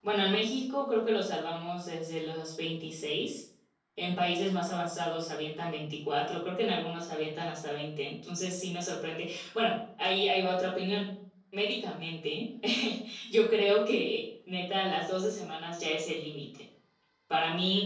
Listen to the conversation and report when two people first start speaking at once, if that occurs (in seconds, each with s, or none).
none